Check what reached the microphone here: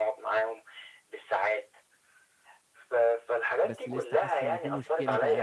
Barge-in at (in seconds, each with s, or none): 3.6 s